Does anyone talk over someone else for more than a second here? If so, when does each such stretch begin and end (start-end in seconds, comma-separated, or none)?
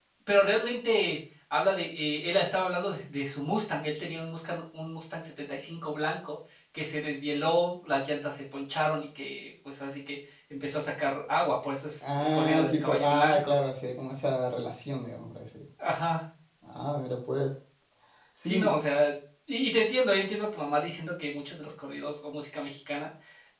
12.2-13.5